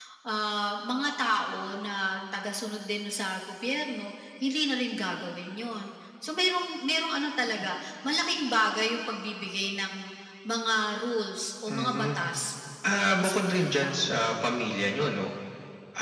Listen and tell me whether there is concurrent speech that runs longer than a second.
Yes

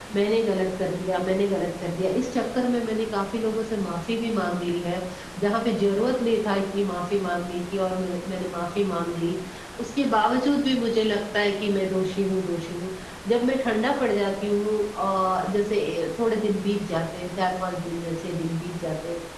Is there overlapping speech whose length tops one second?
No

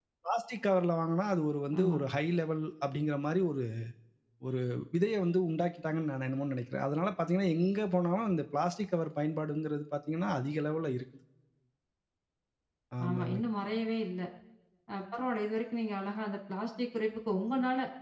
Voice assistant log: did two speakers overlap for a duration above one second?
No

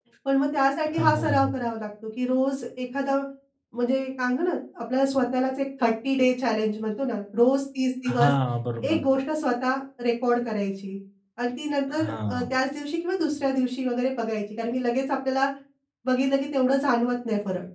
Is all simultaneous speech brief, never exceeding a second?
Yes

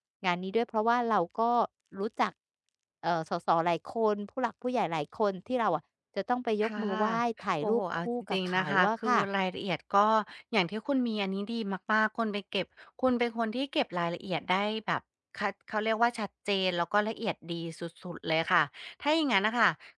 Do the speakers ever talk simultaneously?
Yes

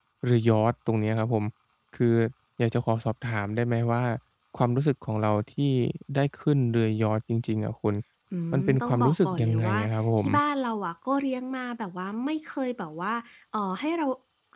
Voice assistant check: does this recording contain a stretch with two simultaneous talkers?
Yes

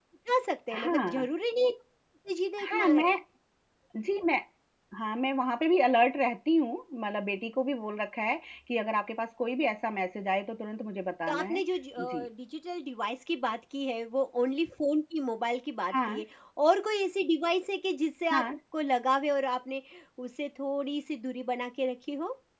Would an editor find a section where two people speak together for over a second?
No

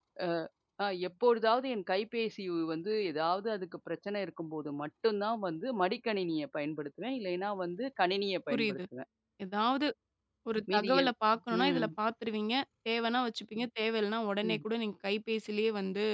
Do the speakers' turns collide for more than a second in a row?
No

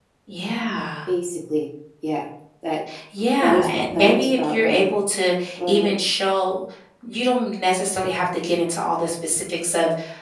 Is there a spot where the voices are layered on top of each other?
Yes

